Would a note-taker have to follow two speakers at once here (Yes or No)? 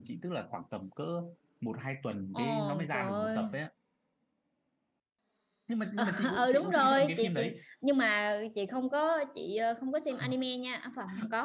Yes